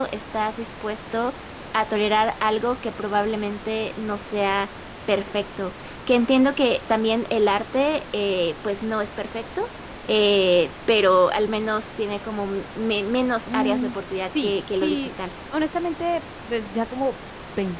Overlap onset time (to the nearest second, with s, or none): 13 s